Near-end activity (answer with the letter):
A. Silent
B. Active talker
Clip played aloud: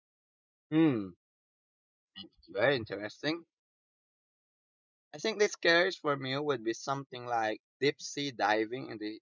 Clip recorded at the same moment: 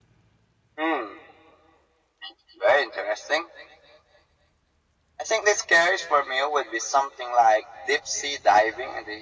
A